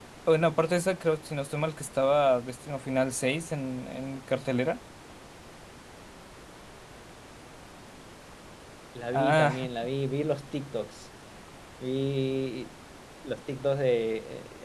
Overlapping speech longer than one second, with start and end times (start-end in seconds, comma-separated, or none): none